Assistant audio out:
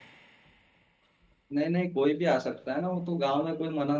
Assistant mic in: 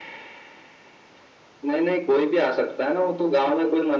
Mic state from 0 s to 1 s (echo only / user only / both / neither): neither